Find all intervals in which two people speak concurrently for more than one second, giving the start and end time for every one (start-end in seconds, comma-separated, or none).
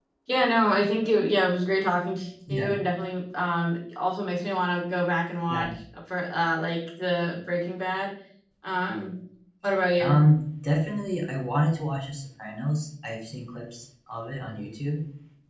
none